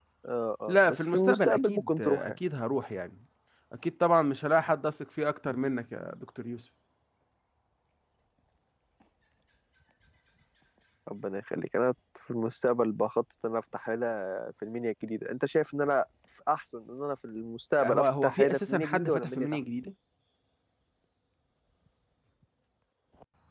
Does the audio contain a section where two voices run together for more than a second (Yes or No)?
Yes